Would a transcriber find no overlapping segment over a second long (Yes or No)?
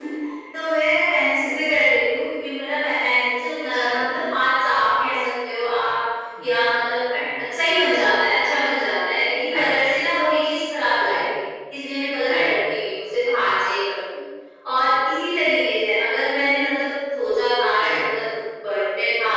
Yes